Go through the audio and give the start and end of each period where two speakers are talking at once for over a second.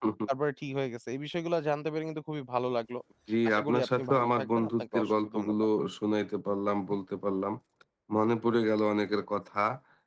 3.5-5.5

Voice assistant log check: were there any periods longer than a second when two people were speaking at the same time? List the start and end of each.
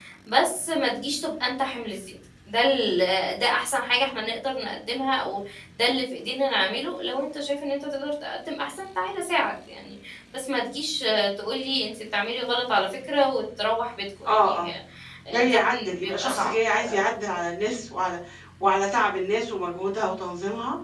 15.3-16.5

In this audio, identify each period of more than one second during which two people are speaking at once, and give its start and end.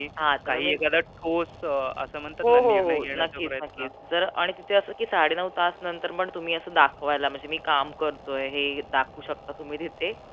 2.4-3.9

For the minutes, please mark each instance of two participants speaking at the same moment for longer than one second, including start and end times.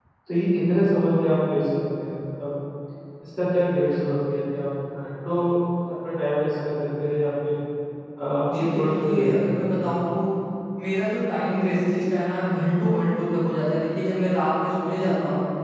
8.5-9.8

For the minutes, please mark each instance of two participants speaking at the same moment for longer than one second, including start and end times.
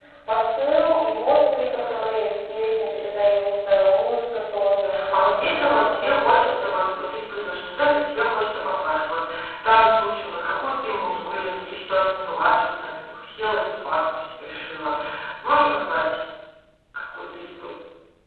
5.1-6.7

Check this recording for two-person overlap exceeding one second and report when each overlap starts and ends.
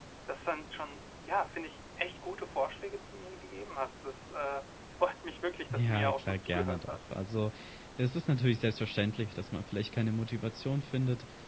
5.7-7.0

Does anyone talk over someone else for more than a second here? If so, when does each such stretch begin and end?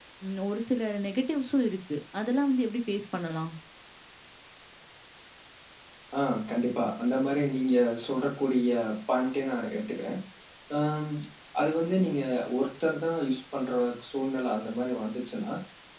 none

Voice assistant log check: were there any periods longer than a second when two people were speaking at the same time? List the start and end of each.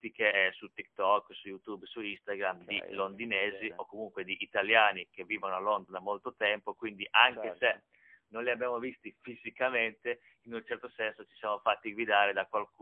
2.4-3.7

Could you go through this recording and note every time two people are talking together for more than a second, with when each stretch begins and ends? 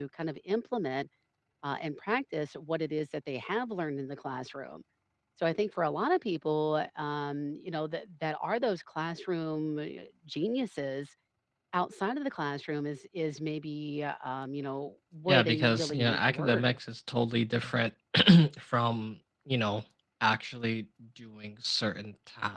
15.3-16.6

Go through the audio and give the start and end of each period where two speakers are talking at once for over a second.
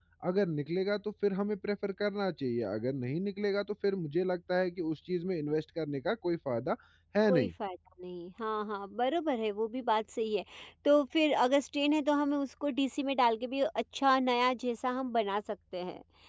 none

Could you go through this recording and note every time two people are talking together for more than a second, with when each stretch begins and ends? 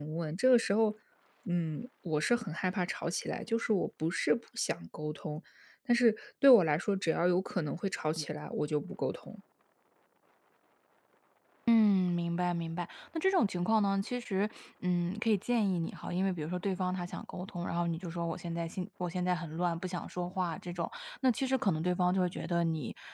none

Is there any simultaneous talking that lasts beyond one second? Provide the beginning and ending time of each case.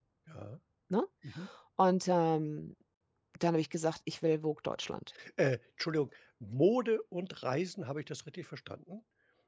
none

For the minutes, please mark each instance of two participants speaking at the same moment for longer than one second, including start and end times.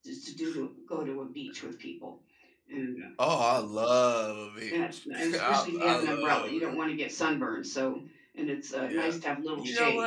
4.7-6.8

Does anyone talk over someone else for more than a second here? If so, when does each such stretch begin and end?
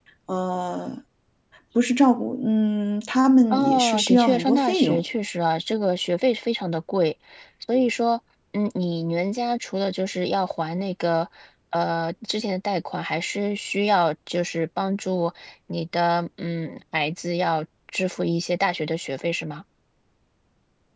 3.5-5.0

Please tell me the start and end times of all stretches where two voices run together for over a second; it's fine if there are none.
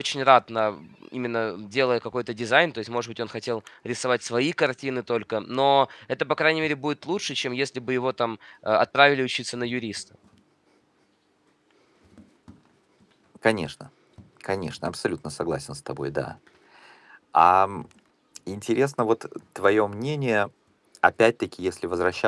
none

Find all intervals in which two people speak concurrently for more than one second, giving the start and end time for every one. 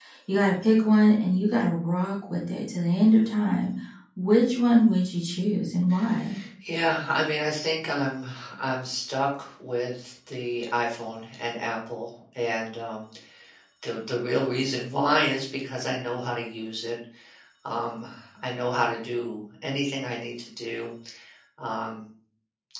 none

